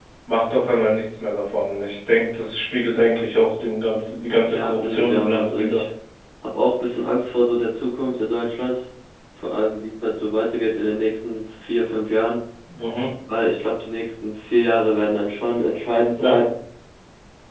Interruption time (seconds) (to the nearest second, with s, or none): 4 s